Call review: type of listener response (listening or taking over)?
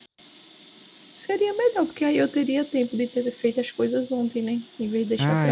taking over